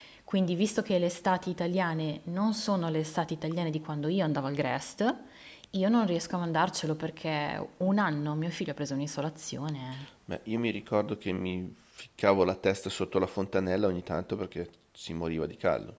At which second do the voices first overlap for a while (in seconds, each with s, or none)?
none